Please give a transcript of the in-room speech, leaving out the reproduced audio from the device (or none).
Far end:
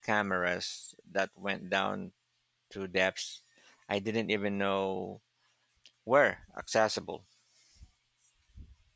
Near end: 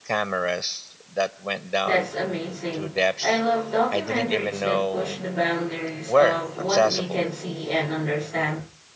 That's amazing. I love documentaries that push the boundaries of what we can see and understand.